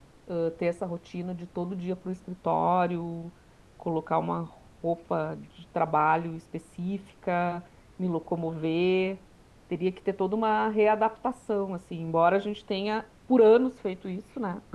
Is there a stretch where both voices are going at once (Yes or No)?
No